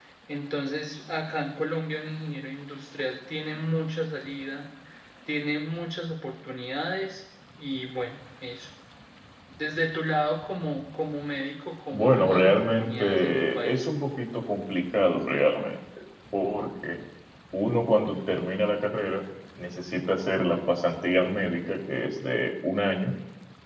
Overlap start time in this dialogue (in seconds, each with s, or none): 11.9 s